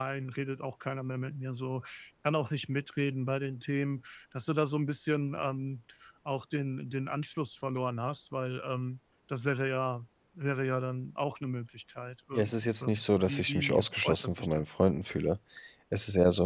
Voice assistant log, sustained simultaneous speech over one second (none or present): present